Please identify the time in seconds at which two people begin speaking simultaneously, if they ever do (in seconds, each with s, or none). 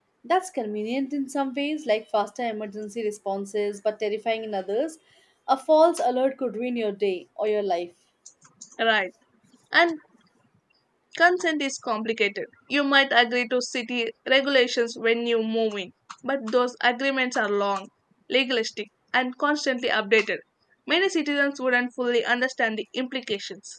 none